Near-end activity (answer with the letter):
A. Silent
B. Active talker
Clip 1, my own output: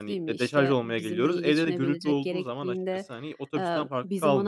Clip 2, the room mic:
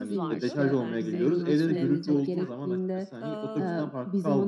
B